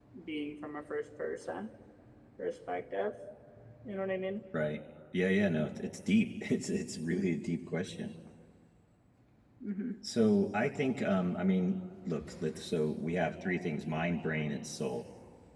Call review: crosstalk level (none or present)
none